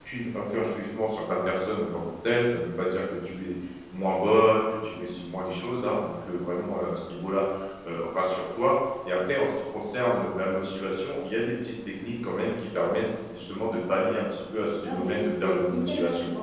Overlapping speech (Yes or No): Yes